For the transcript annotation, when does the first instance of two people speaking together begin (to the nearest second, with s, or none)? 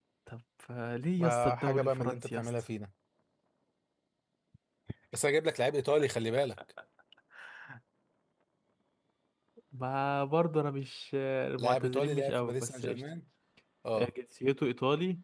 1 s